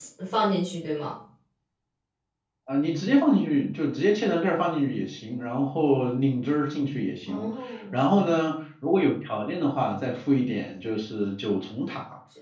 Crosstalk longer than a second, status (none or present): none